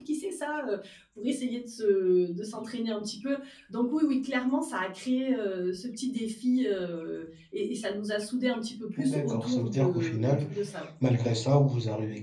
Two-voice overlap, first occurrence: 9.0 s

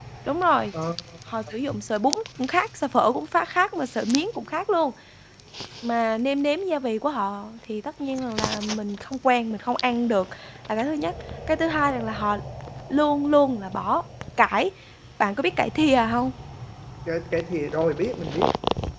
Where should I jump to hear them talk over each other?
none

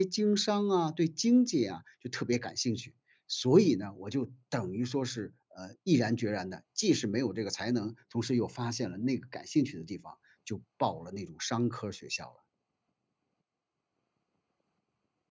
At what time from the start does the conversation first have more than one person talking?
none

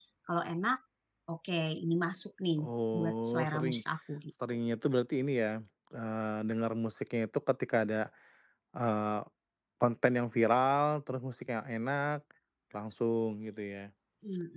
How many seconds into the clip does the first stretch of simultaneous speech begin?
2.6 s

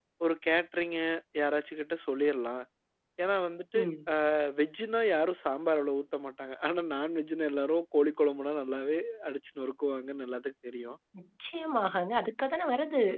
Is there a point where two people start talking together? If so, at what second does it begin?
none

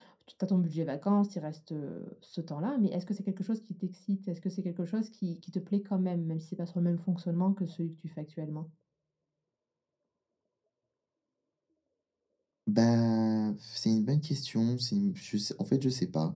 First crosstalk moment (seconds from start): none

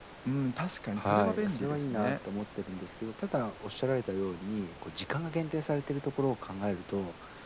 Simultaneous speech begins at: 1.0 s

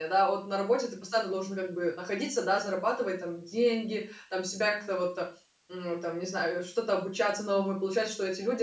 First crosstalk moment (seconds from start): none

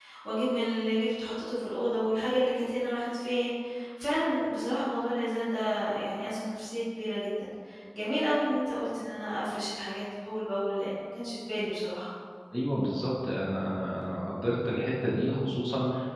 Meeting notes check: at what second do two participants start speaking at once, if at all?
none

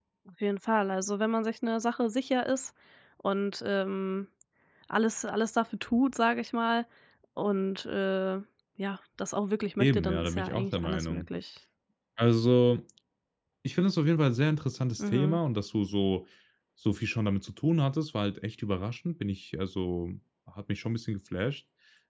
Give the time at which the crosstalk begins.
9.8 s

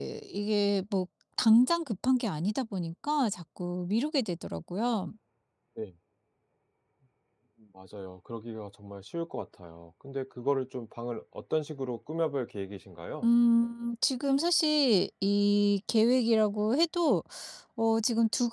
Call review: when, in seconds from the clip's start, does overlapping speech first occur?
none

